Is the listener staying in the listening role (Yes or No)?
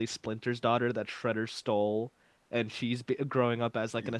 Yes